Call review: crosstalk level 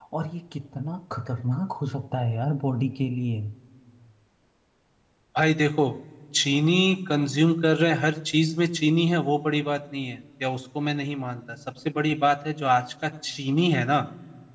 none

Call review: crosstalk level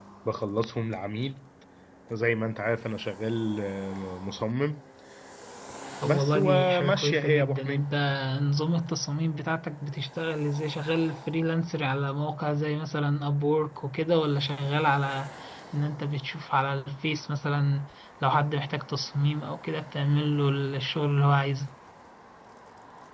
present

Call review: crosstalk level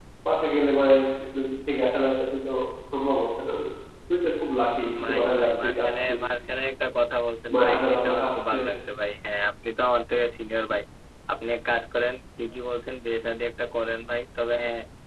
present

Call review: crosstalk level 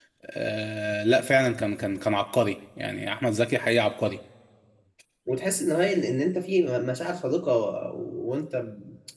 none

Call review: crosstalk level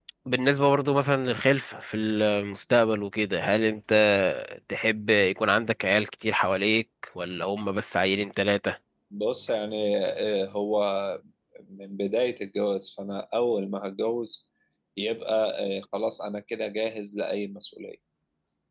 none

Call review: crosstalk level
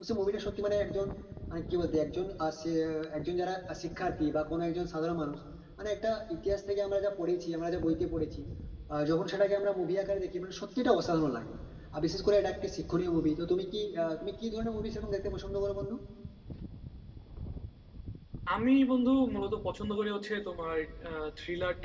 none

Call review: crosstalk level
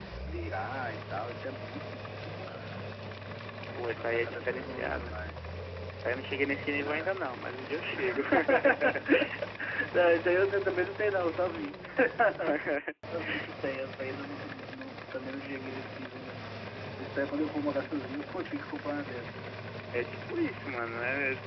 present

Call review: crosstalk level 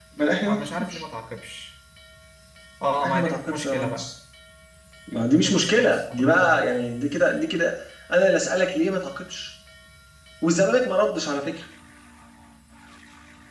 present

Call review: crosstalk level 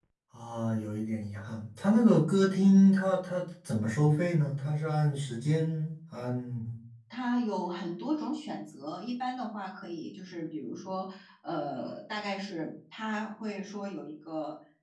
none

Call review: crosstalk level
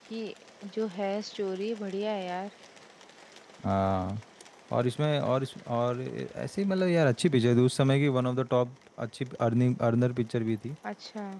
none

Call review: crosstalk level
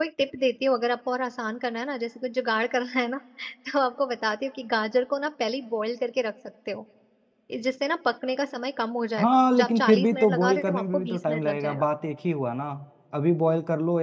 present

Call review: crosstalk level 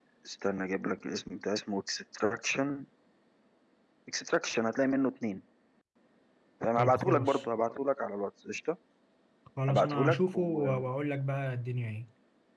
present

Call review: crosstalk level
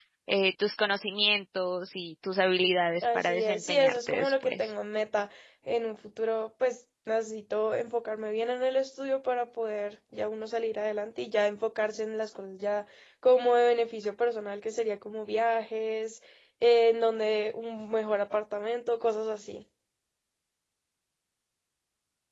present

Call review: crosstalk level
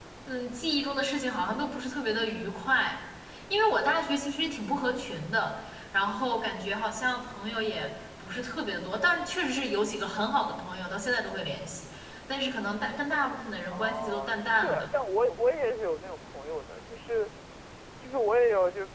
present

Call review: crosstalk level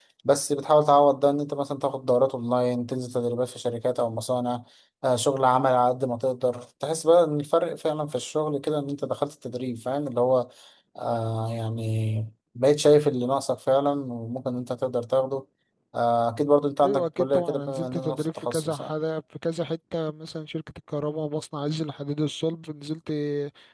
present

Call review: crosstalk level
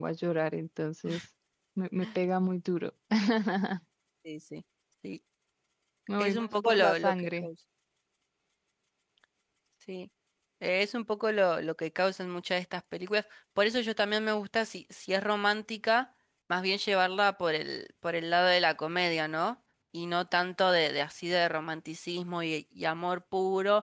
present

